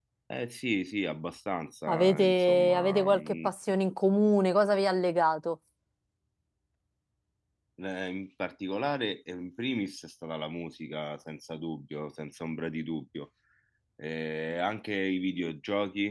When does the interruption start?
1.9 s

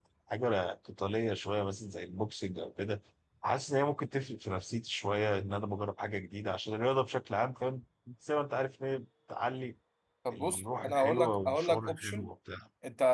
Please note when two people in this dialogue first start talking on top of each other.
10.3 s

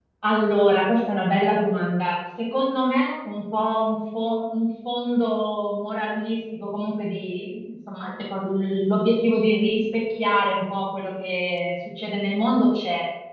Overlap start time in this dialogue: none

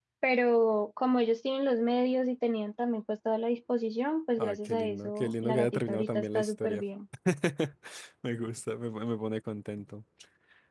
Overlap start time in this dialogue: 4.4 s

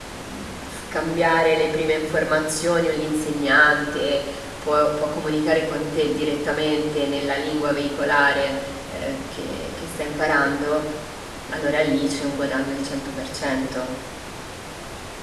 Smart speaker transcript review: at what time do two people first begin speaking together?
none

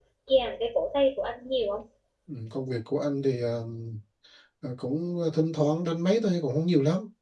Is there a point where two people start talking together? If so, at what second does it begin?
none

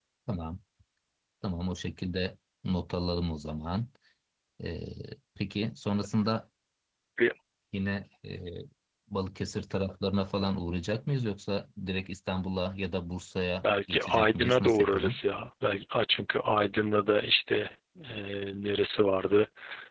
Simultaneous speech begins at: 13.6 s

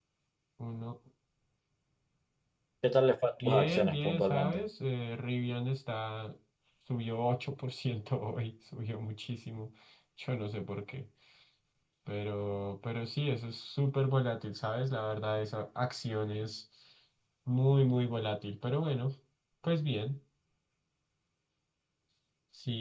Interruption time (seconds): 3.4 s

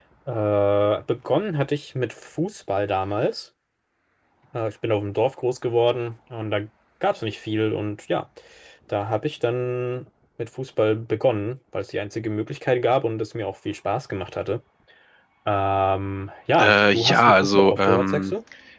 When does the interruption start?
16.6 s

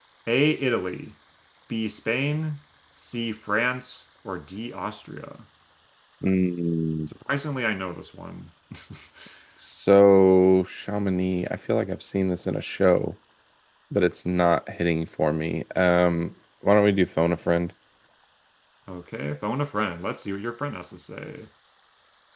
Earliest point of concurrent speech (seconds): none

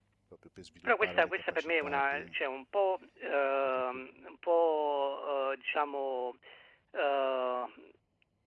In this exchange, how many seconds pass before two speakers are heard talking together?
0.8 s

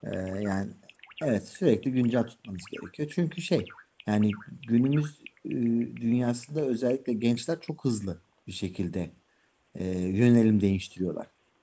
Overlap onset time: none

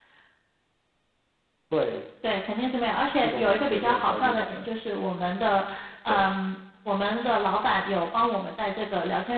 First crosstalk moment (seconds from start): 3.2 s

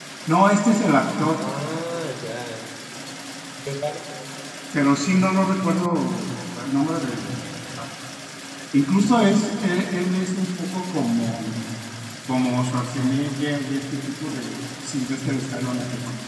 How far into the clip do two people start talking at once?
none

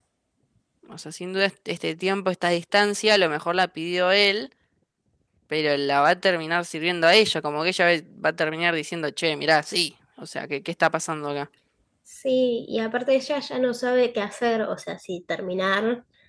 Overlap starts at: none

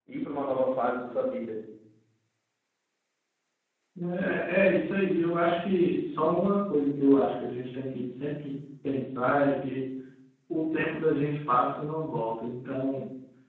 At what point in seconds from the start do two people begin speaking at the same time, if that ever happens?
none

